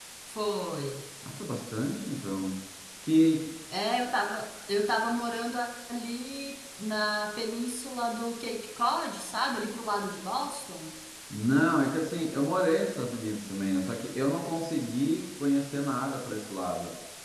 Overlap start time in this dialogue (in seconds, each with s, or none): none